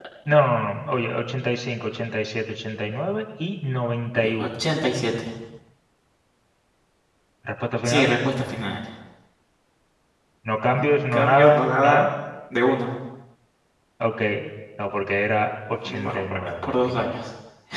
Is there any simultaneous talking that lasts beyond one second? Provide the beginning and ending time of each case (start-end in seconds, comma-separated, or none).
10.7-12.1, 15.8-17.1